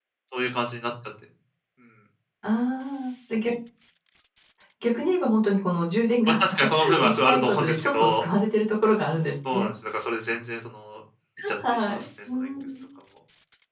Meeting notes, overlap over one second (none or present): present